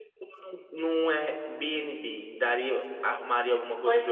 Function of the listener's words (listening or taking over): taking over